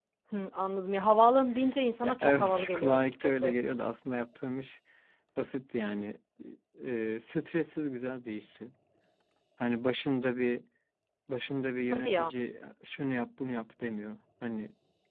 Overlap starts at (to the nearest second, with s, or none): 2 s